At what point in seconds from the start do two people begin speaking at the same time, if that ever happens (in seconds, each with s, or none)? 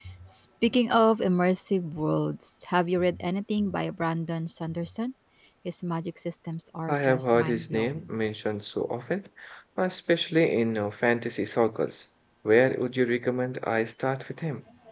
6.9 s